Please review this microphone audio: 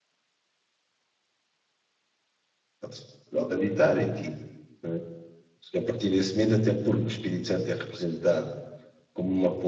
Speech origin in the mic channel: user only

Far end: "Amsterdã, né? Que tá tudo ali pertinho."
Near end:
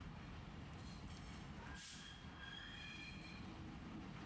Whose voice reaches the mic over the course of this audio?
neither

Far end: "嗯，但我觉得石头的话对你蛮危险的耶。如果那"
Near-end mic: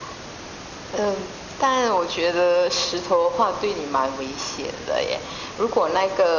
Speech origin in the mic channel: echo only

